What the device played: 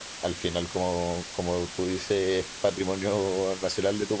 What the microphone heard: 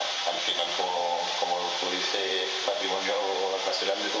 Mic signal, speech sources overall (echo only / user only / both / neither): echo only